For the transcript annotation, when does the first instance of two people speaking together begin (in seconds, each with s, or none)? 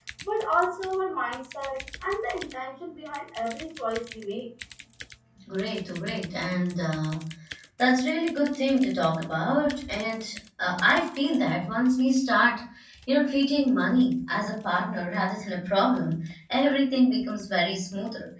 none